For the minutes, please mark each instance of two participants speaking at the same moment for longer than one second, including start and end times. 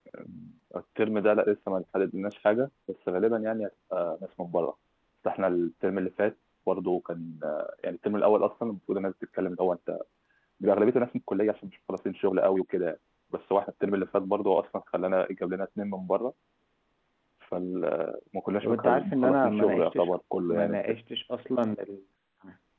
18.6-20.1

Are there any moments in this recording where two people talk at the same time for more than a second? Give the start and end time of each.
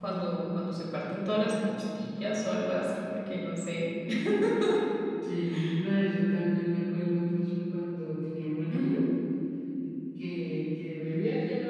none

